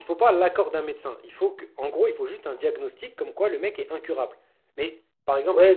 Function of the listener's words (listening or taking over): taking over